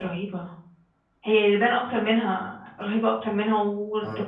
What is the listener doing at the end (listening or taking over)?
listening